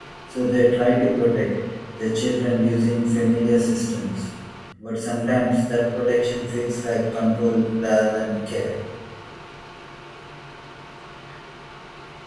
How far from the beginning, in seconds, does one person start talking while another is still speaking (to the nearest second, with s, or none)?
none